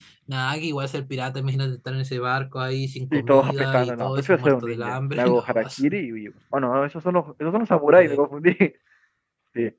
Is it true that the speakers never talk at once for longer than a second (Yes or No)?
No